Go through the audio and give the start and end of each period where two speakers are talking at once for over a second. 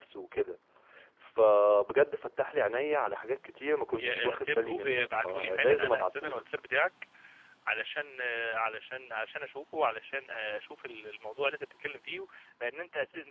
4.0-6.4

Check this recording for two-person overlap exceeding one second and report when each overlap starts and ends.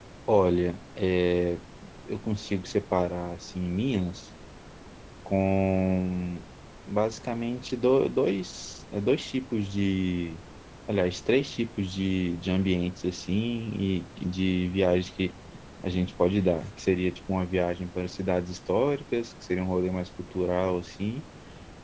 none

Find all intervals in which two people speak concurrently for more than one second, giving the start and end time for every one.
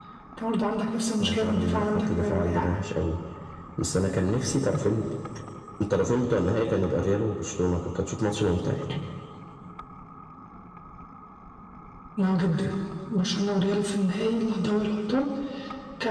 1.2-2.7

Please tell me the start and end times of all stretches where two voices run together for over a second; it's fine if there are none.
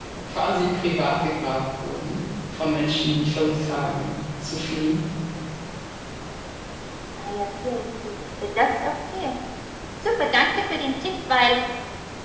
none

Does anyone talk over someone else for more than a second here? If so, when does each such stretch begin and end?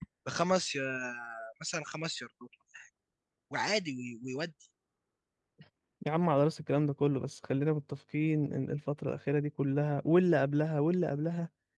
none

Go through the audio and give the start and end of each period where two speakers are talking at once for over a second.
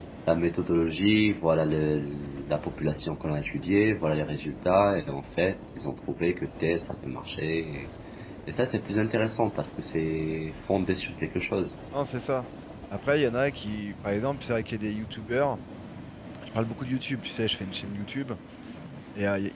none

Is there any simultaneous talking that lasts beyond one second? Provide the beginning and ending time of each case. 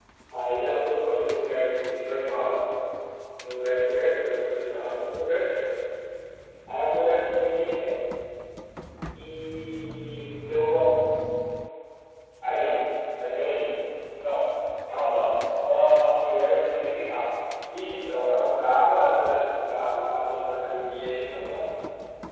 none

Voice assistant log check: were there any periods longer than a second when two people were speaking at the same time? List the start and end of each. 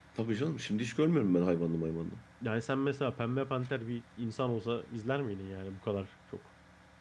none

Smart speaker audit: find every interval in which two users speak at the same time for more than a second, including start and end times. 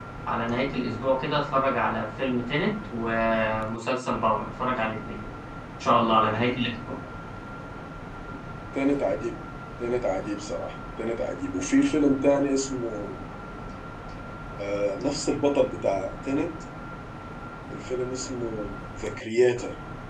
none

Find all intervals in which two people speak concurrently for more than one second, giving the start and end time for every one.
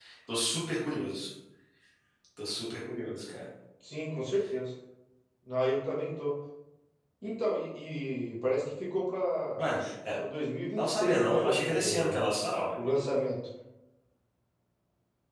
10.8-12.2

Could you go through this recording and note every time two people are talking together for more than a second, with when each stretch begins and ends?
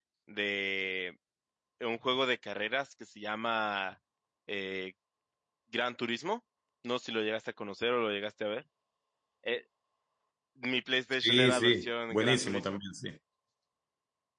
11.2-12.8

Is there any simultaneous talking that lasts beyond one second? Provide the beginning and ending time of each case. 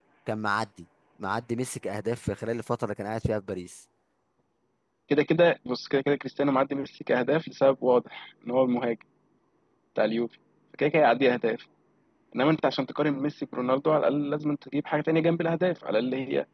none

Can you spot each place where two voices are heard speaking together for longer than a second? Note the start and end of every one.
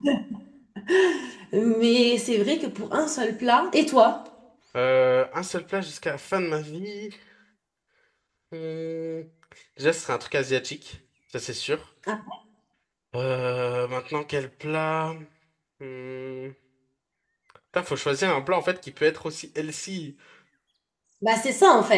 none

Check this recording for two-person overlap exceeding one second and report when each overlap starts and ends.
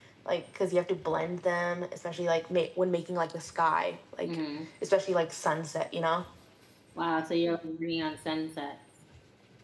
none

